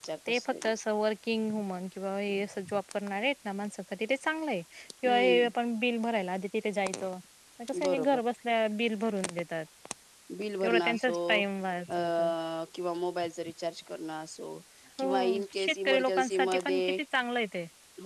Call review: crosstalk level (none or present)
present